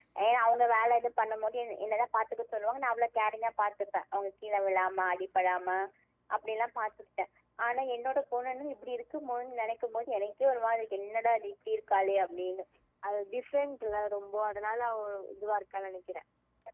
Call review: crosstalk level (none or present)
none